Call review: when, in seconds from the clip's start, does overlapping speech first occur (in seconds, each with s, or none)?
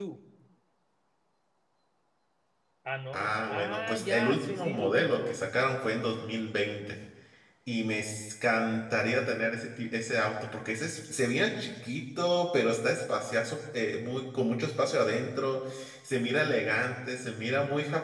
3.1 s